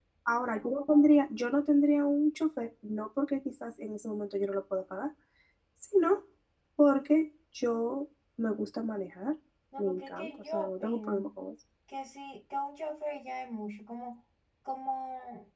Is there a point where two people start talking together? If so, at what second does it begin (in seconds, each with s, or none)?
9.8 s